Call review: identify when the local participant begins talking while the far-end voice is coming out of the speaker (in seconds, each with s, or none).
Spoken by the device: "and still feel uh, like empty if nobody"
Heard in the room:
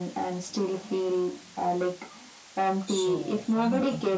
2.9 s